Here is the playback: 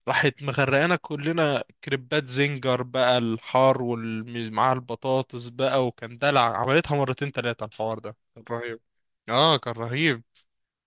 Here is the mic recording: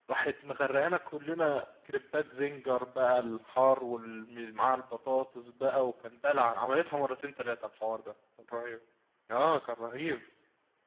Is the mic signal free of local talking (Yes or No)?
Yes